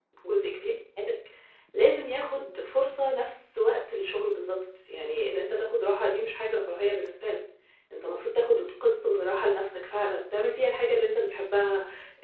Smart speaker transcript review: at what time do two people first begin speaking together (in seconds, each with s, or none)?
none